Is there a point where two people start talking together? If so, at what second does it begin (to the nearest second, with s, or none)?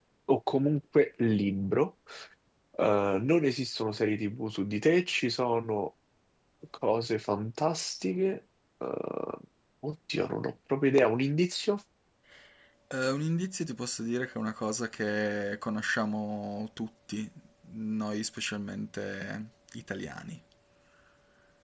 none